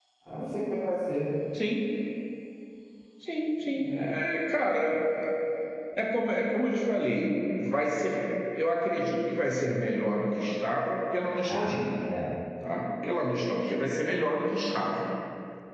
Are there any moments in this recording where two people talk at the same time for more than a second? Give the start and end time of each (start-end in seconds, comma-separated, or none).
none